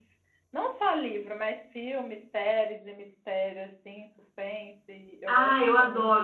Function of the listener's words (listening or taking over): taking over